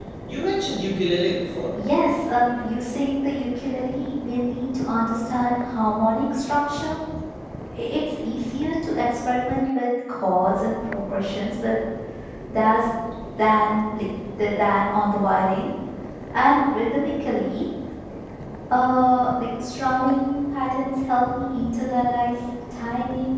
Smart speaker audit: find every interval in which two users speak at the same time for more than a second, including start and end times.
none

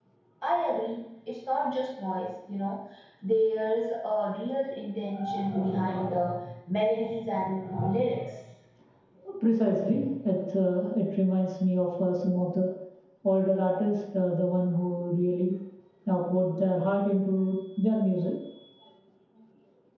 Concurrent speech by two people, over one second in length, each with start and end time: none

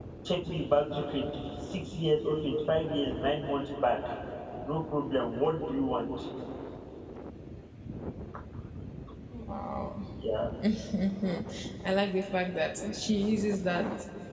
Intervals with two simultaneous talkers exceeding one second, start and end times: none

